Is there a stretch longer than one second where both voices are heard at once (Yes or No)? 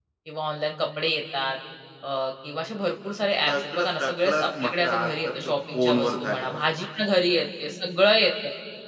Yes